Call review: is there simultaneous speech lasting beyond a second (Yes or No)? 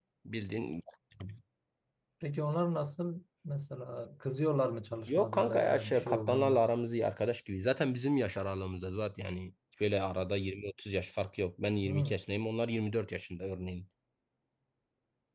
Yes